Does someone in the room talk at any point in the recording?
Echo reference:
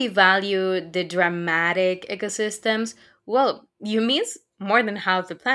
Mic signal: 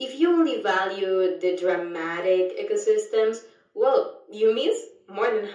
No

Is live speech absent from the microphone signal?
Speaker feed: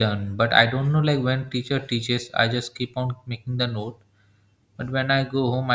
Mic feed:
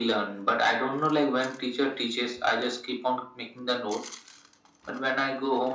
Yes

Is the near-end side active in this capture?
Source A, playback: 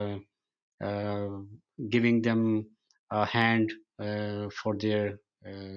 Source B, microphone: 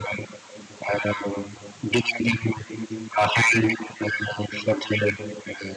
No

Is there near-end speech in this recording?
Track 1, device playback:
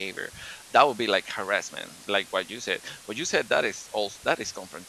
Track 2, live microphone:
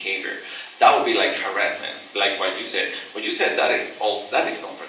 No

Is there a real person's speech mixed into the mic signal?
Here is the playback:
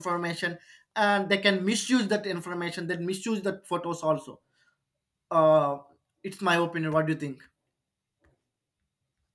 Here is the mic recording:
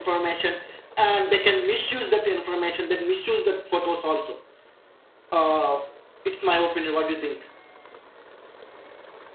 No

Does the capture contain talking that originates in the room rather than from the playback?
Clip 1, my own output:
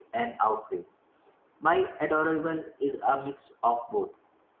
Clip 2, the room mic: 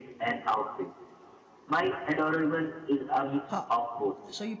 Yes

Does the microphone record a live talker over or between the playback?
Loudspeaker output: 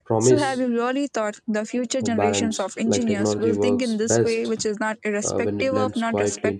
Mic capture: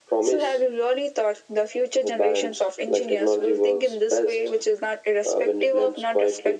No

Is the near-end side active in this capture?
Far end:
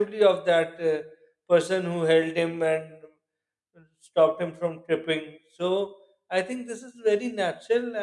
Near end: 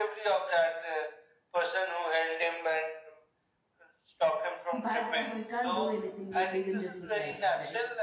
Yes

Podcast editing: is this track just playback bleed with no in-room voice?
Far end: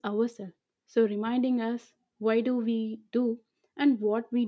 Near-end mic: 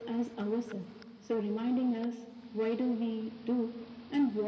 Yes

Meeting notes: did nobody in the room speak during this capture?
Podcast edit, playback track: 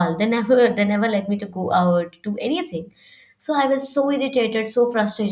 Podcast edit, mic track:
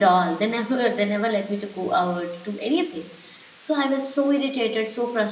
Yes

